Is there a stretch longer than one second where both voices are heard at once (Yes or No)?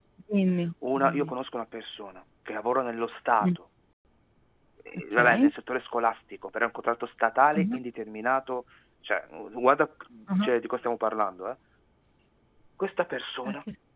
No